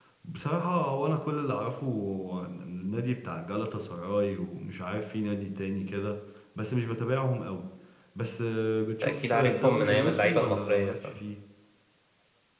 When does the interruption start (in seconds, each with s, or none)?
9.0 s